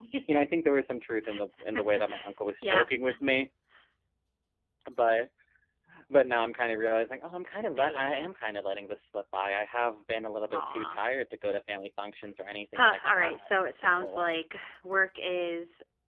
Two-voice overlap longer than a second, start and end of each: 12.7-14.2

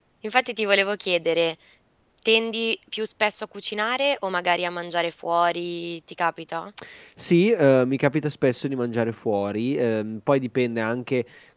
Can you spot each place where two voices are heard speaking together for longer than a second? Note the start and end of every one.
none

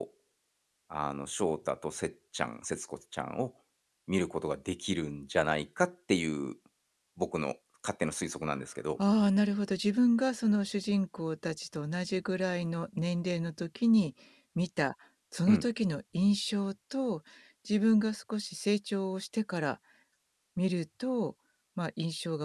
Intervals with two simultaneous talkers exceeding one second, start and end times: none

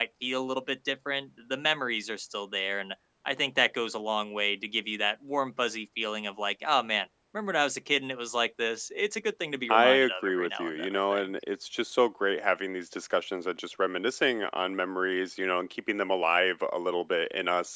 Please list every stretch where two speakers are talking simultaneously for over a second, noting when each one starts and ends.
9.7-11.3

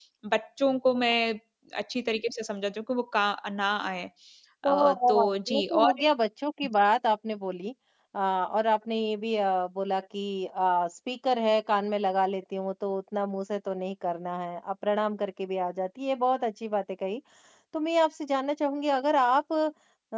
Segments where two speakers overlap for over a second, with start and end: 4.7-5.9

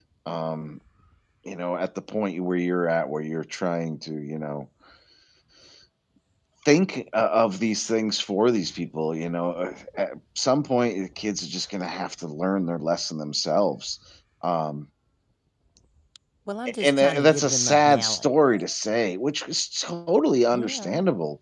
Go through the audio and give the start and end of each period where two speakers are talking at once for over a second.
16.7-18.3

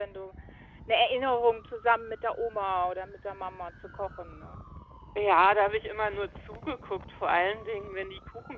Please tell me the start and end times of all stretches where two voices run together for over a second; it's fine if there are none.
none

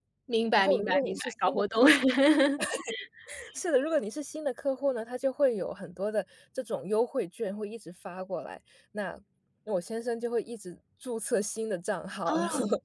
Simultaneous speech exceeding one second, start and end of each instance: 0.6-1.8

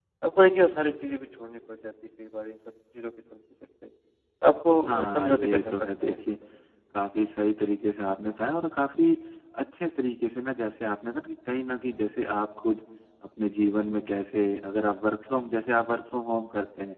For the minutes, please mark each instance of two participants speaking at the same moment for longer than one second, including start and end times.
4.9-6.1

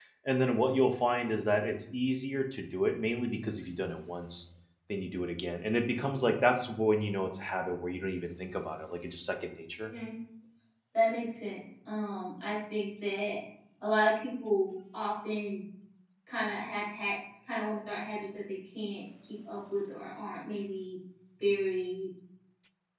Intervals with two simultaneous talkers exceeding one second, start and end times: none

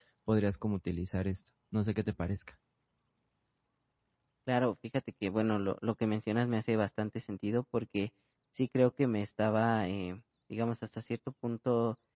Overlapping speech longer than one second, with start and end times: none

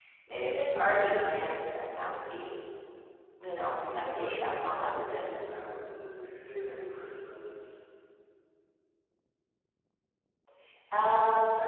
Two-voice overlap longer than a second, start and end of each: 3.7-5.2

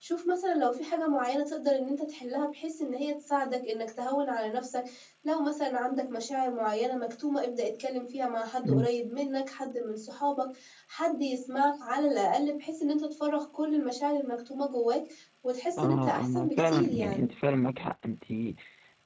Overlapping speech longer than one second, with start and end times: 15.8-17.3

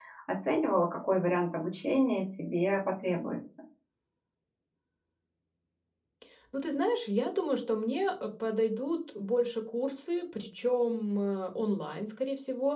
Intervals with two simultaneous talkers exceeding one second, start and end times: none

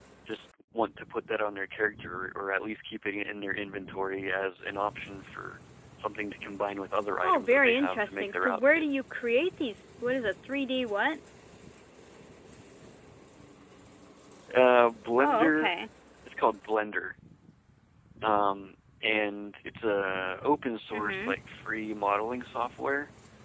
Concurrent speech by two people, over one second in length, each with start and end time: 7.2-8.8

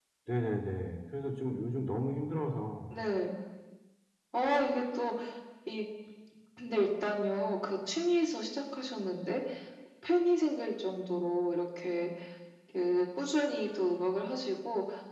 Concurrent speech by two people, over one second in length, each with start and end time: none

